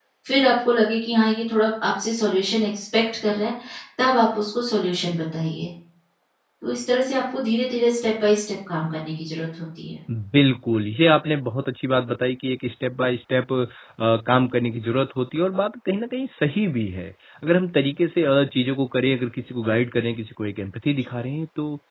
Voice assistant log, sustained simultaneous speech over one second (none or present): none